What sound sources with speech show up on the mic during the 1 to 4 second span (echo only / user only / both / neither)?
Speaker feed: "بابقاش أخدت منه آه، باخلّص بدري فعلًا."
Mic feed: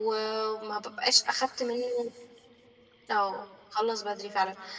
echo only